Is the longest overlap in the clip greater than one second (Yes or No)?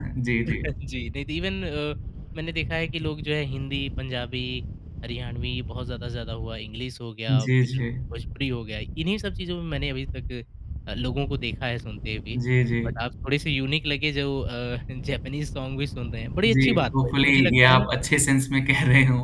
Yes